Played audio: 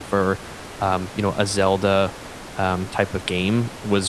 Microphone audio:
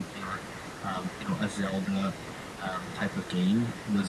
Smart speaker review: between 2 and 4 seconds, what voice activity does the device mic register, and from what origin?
echo only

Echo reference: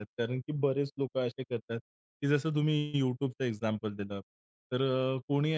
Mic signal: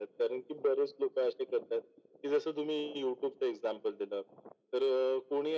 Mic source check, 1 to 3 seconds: echo only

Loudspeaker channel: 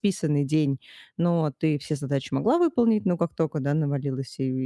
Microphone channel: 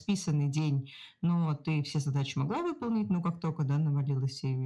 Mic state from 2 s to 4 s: echo only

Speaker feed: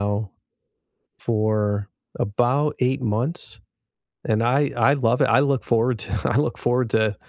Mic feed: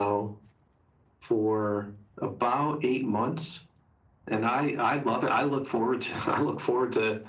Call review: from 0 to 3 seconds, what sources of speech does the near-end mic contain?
echo only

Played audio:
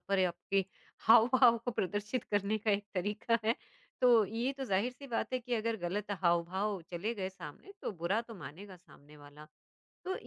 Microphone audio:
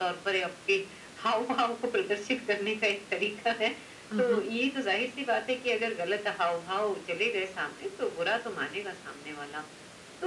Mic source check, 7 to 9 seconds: echo only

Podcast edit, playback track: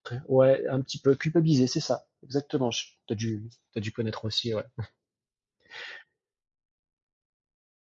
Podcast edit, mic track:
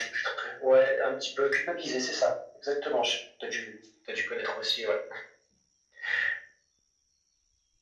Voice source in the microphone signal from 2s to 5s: echo only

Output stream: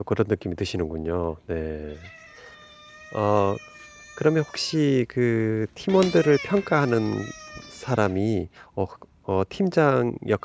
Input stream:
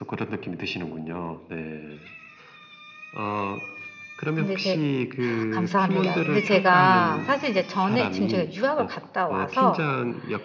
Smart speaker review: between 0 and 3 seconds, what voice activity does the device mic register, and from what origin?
echo only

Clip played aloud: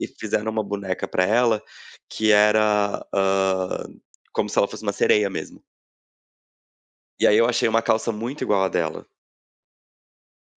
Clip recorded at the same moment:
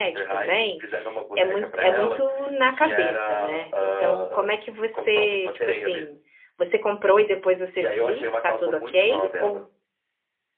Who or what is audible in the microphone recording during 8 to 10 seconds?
both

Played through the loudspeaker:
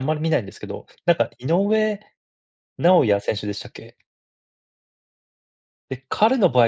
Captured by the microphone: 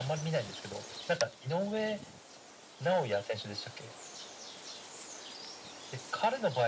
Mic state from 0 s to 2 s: echo only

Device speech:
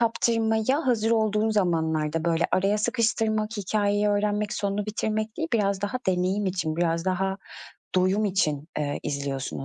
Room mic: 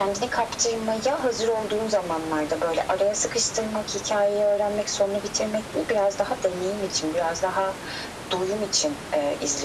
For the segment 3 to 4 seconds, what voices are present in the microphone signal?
echo only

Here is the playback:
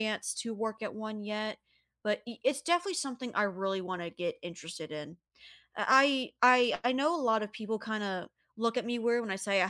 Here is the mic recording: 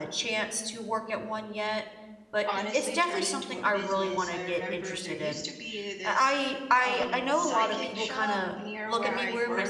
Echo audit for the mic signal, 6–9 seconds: both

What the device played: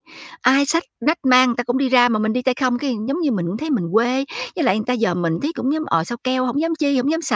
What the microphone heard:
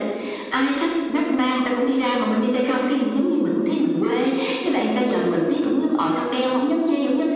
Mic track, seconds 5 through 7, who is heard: echo only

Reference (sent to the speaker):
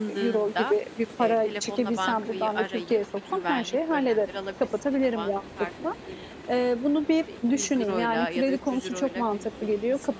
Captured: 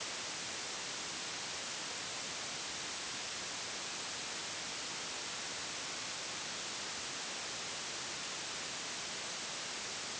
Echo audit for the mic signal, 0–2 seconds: neither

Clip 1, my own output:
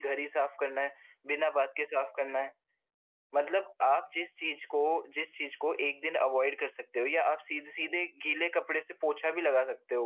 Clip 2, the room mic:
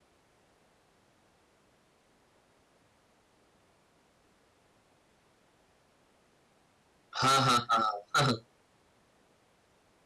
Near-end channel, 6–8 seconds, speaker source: user only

